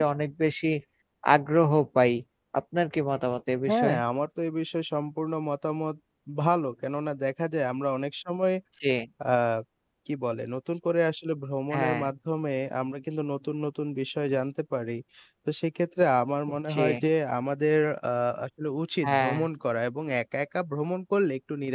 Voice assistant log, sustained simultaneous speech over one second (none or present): none